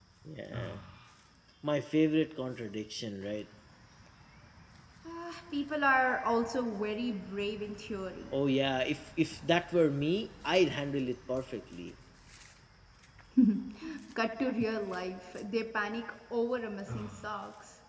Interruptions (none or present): none